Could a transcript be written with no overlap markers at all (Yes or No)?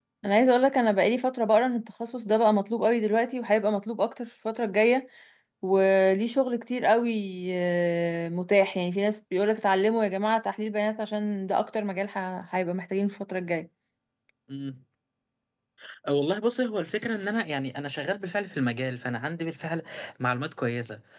Yes